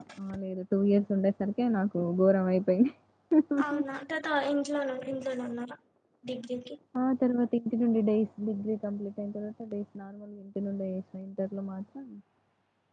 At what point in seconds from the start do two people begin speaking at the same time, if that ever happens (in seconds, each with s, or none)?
none